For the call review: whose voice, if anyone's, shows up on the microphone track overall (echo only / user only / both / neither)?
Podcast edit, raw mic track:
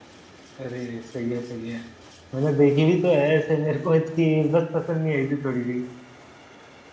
user only